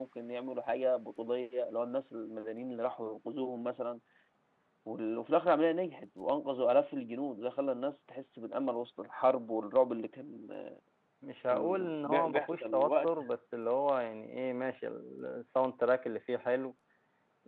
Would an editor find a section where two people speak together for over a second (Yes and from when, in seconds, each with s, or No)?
Yes, from 11.5 s